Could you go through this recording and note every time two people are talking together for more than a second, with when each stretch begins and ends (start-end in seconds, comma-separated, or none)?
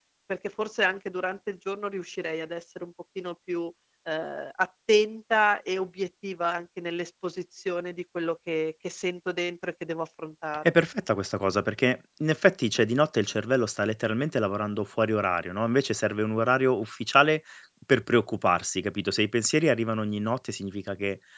none